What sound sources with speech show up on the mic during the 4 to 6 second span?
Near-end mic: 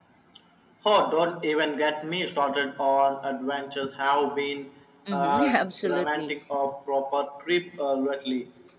both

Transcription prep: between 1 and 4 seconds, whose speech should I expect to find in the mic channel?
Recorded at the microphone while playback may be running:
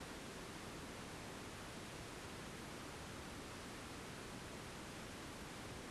neither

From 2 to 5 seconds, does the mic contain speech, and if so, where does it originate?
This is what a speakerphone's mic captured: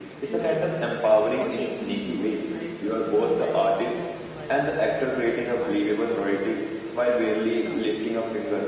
both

